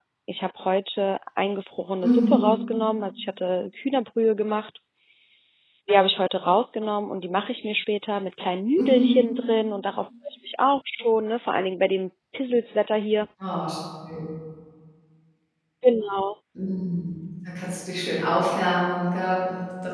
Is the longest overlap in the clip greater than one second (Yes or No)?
No